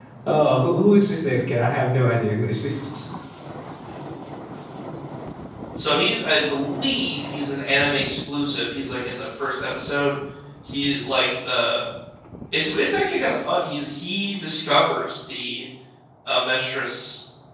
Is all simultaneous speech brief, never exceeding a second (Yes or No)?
Yes